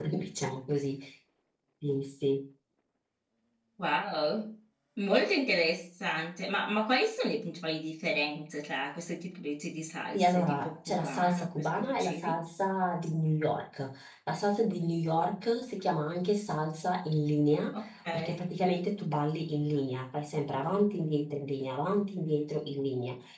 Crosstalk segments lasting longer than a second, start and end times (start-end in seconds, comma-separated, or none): 10.1-12.4